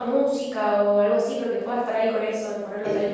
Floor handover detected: Yes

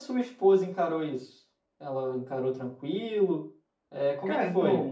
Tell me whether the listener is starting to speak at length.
Yes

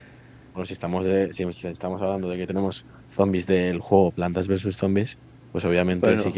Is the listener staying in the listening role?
Yes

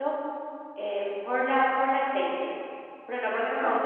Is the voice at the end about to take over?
No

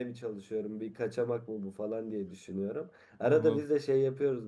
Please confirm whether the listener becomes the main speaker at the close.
No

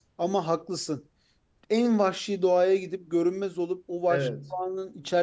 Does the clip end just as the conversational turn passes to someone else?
No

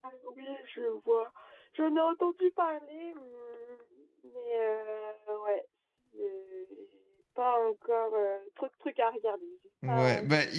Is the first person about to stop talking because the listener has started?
Yes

